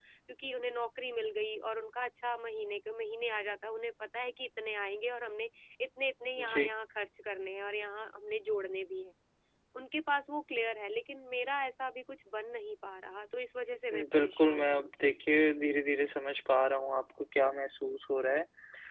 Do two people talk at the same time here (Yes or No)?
Yes